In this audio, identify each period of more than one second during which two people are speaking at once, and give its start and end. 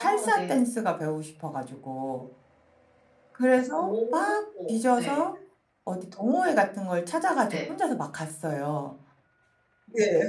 none

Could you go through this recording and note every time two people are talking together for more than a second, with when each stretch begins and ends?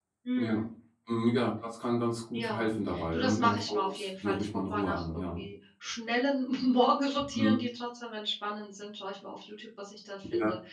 3.1-5.4

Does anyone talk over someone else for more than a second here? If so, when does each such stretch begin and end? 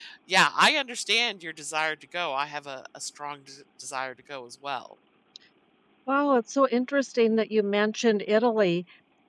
none

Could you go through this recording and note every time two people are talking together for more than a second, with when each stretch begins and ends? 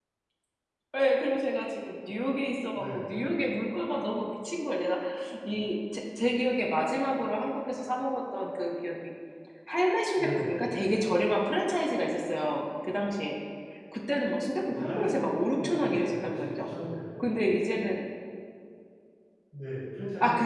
14.7-16.7

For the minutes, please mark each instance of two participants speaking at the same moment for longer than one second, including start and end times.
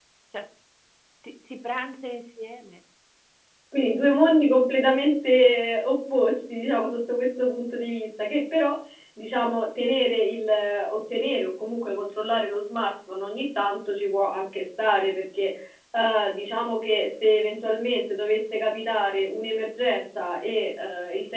none

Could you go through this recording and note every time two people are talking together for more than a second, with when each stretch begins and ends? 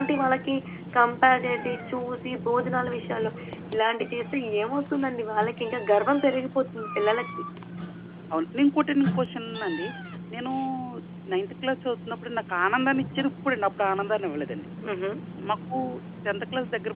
none

